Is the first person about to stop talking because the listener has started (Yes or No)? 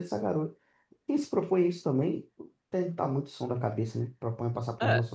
Yes